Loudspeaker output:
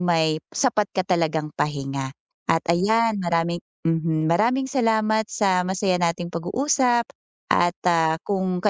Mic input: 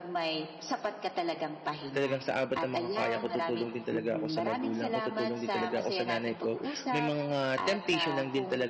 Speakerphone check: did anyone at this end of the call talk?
Yes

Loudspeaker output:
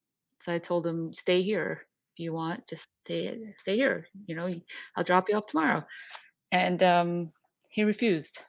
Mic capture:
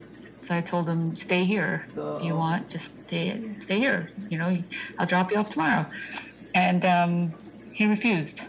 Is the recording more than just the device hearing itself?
Yes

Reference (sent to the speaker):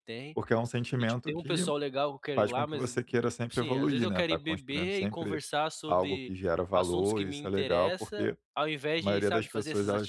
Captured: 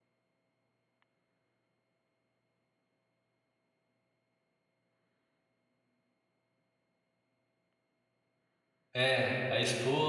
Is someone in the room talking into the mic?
Yes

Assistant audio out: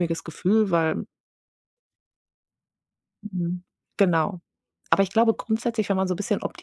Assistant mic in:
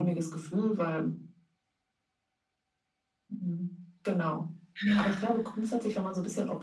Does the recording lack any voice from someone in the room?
No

